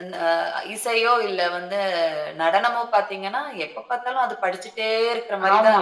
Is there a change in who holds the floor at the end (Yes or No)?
Yes